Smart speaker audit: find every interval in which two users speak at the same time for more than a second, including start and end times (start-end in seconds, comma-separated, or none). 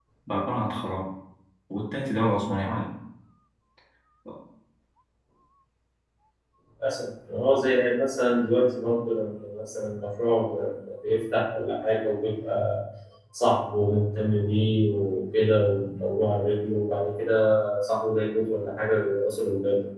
none